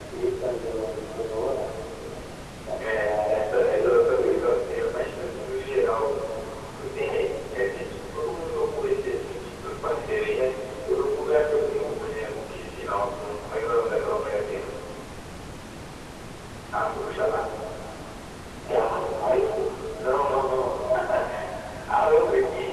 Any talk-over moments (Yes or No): Yes